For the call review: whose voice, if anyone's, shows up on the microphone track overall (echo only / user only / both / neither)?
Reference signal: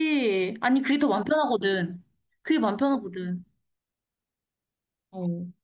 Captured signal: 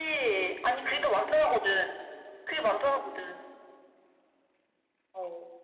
echo only